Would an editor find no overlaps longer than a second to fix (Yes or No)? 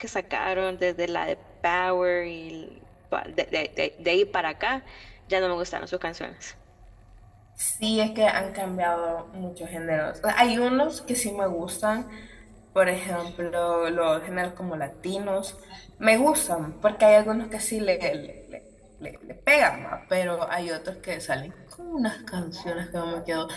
Yes